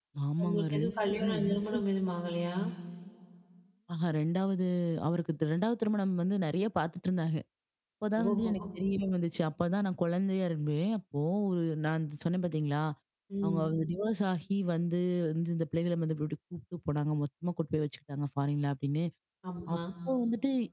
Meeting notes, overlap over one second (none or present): present